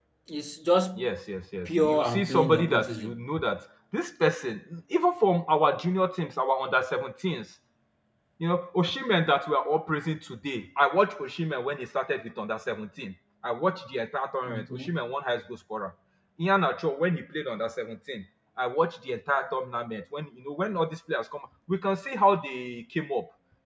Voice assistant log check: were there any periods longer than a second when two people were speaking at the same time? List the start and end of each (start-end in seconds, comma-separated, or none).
1.6-3.1